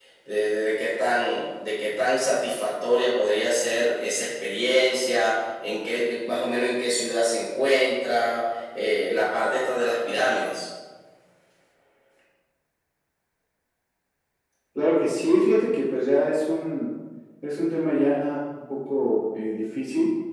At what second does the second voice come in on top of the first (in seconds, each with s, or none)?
none